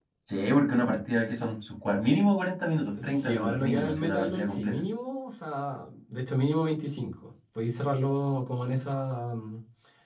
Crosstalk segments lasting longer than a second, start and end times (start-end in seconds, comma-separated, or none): 3.0-4.8